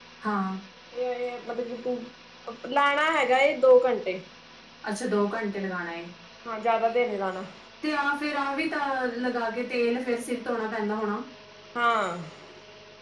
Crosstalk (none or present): none